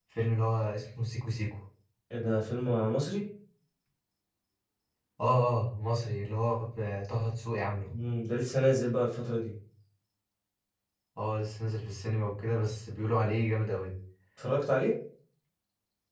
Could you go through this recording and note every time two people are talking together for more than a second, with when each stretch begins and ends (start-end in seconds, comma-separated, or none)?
none